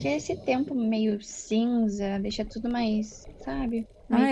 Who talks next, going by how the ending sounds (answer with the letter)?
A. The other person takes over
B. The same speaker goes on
A